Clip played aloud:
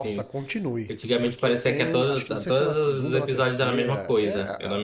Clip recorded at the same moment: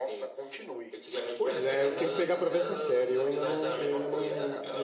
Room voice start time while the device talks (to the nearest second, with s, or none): 1 s